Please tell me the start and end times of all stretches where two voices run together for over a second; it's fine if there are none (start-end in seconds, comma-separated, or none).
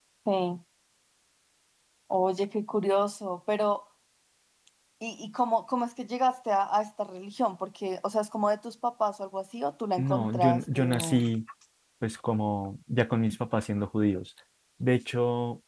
10.0-11.2